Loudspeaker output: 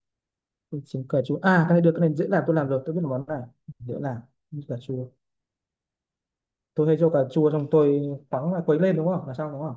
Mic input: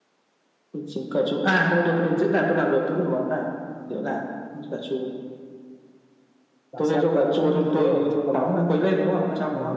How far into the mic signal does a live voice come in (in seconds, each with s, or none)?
6.7 s